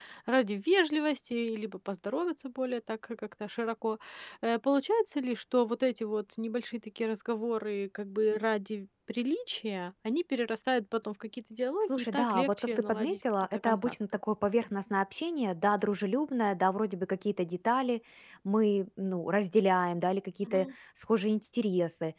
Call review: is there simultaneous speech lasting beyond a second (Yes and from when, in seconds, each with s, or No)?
Yes, from 11.8 s